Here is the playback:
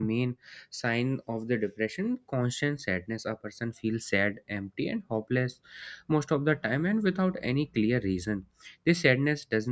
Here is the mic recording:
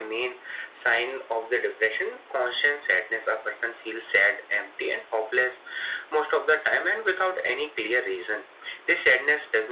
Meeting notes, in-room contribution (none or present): none